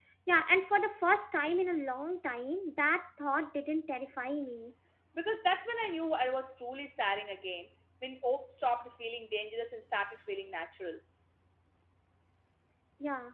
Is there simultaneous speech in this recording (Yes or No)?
No